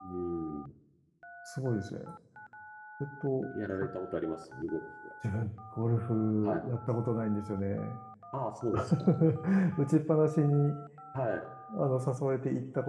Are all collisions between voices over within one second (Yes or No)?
Yes